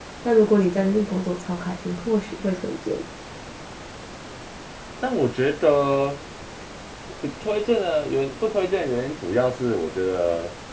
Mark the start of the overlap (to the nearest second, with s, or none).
none